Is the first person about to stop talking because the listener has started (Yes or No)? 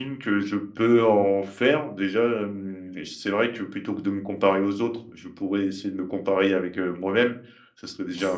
No